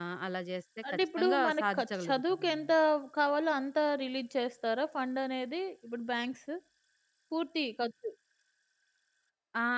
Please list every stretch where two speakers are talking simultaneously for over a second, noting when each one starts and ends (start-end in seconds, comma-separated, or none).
0.9-2.7